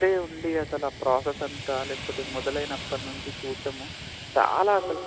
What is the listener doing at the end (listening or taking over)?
listening